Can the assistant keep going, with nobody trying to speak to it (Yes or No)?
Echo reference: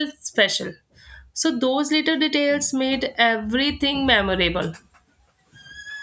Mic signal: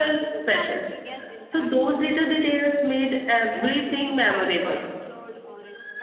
No